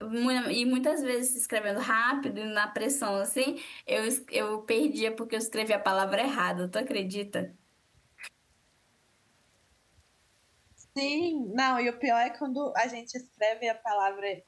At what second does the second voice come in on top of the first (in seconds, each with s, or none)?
none